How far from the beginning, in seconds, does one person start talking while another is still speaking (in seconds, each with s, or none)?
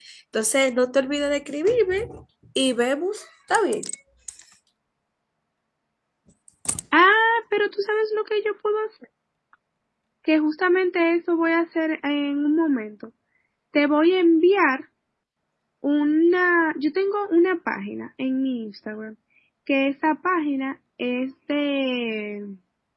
none